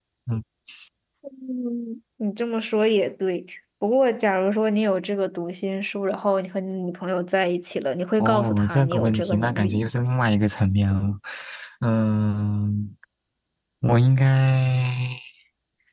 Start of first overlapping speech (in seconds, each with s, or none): 8.2 s